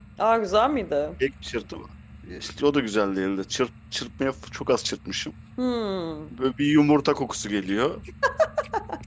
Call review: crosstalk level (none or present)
none